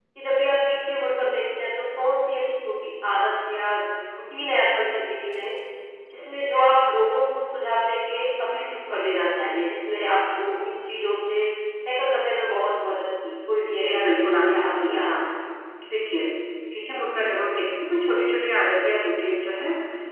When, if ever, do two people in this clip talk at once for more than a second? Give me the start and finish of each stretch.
13.7-15.1

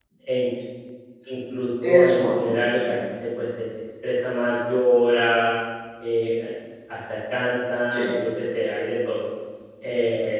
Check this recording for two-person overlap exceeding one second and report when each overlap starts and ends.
1.8-3.0

